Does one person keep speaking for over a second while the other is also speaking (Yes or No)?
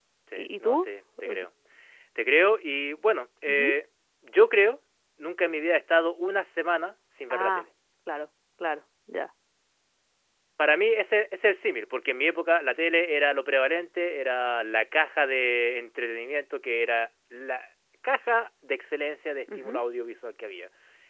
No